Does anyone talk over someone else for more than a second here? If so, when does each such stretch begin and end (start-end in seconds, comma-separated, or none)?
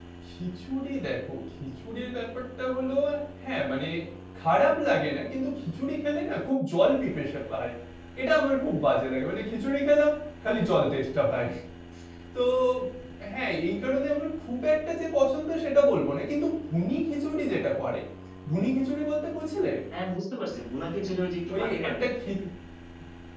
none